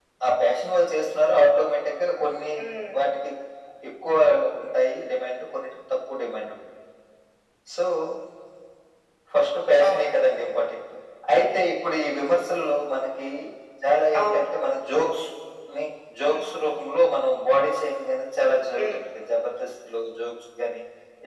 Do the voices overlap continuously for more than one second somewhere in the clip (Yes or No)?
No